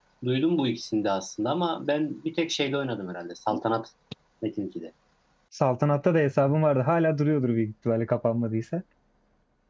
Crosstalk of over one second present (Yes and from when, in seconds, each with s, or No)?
No